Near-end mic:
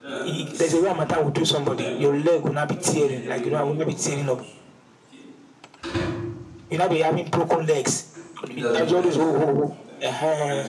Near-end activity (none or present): present